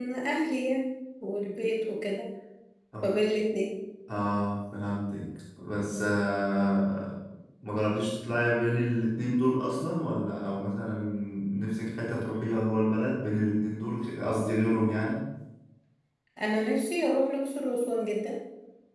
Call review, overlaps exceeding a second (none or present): none